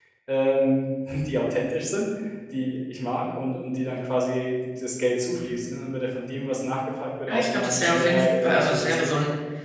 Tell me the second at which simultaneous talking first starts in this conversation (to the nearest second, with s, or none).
7 s